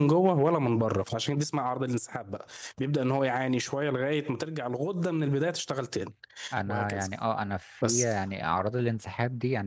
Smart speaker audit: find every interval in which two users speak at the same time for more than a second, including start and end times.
none

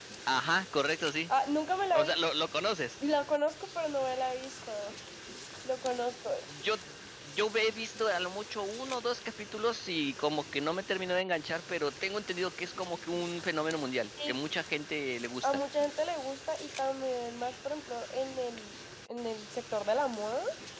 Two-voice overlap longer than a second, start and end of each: none

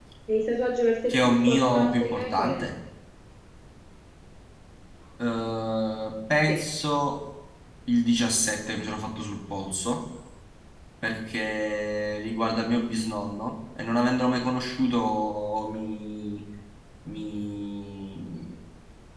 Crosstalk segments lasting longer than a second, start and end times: 1.1-2.6

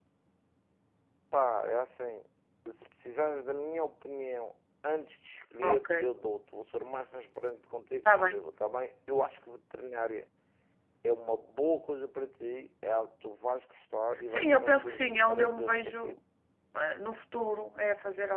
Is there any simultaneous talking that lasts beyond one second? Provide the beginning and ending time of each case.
14.3-16.2

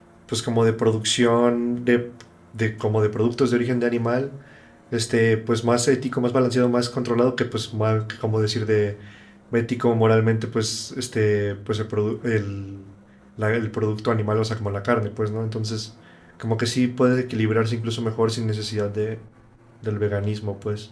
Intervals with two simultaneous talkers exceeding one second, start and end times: none

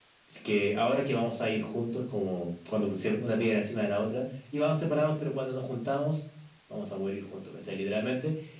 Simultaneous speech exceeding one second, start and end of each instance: none

